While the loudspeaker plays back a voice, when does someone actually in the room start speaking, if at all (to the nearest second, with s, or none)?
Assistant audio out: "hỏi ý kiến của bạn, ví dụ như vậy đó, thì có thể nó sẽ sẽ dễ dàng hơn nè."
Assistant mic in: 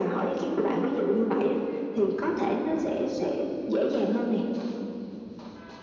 none